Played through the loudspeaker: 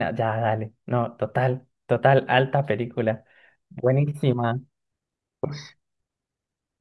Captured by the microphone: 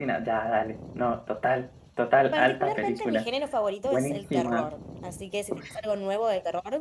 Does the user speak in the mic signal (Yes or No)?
Yes